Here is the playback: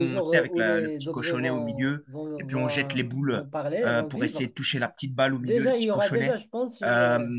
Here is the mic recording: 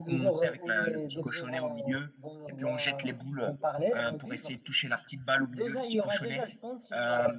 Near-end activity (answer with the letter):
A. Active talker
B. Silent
B